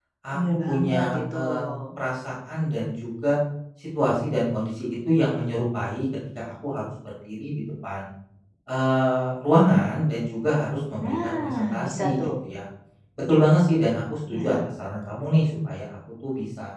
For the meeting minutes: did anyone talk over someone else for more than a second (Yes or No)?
Yes